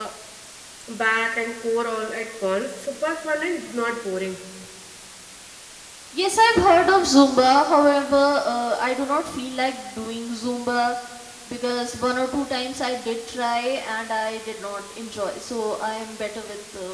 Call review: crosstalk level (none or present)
none